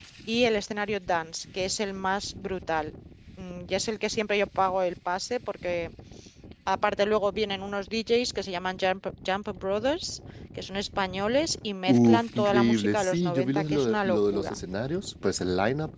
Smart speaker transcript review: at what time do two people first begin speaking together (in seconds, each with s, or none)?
11.9 s